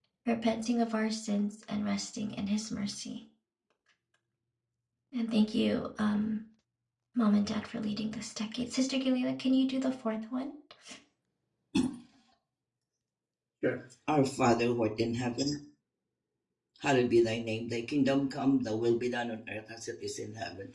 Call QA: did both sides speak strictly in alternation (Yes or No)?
Yes